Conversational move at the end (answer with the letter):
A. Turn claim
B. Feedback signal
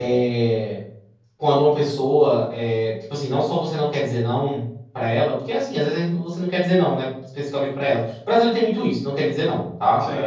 B